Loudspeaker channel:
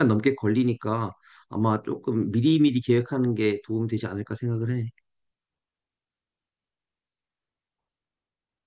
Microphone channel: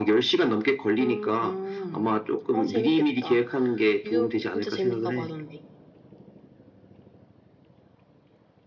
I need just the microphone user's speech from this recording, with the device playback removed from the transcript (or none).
음, 음. 아, 재밌겠다. 뉴욕 진짜 재밌다고 하던데.